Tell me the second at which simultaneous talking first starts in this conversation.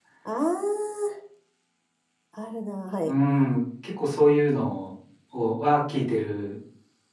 none

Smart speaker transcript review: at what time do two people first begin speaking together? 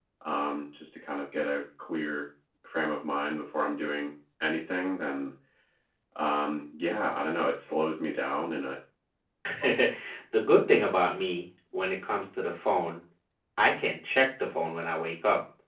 none

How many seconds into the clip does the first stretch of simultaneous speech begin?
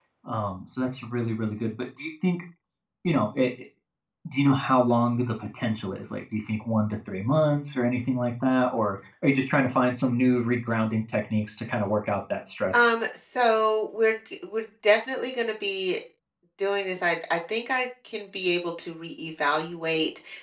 none

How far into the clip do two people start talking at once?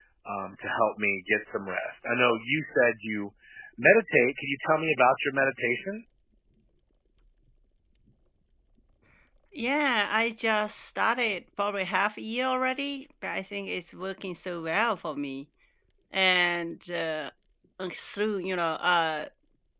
none

